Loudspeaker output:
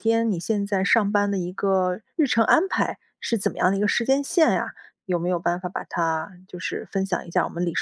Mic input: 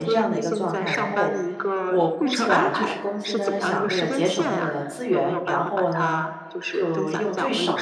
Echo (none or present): present